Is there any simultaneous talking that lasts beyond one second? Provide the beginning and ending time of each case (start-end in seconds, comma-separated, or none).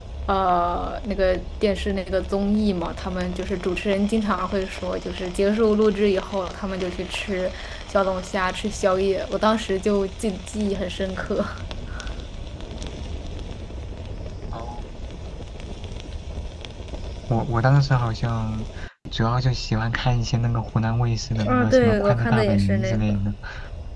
21.4-23.2